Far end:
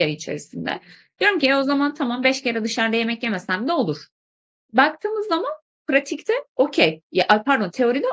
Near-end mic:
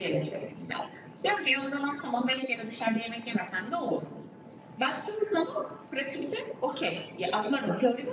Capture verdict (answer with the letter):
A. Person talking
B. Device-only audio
B